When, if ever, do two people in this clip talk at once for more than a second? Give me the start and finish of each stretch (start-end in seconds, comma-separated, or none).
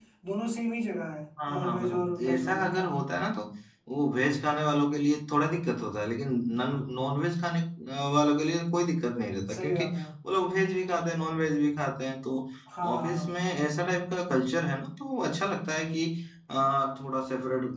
1.5-3.0